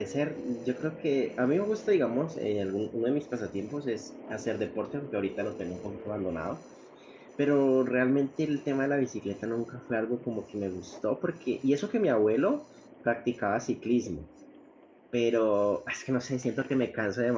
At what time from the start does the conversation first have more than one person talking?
none

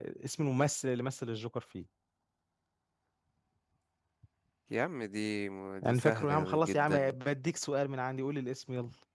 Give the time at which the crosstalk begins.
5.8 s

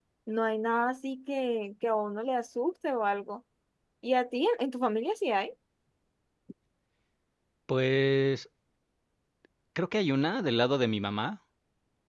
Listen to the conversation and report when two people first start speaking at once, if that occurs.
none

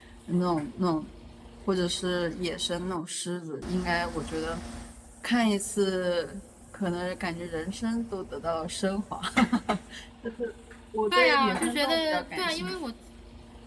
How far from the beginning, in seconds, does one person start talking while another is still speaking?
11.1 s

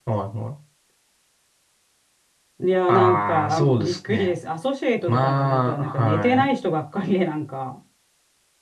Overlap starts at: 2.9 s

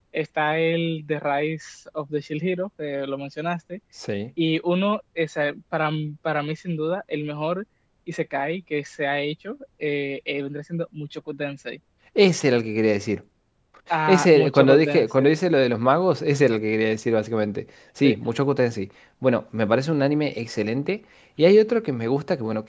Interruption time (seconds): 14.1 s

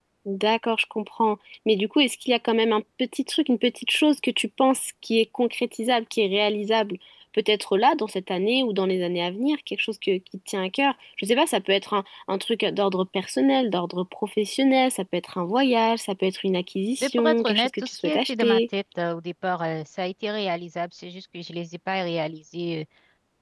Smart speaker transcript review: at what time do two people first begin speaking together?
17.0 s

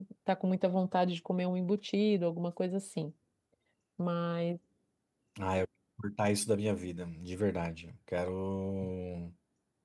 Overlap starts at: none

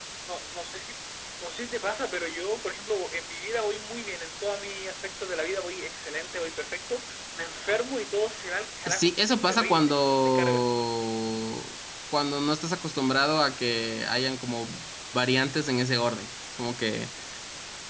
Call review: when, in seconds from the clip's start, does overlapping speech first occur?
8.9 s

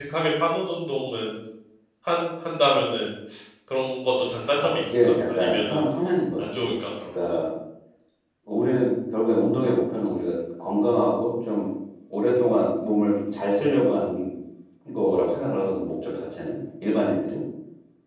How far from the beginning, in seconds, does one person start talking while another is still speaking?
4.6 s

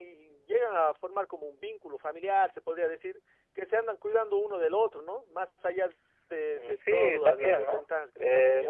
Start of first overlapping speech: 6.5 s

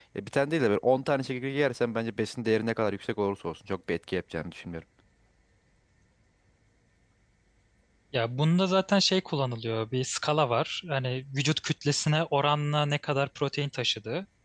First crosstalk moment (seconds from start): none

